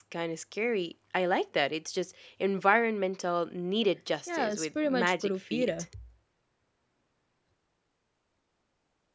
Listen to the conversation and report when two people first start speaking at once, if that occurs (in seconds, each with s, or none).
4.3 s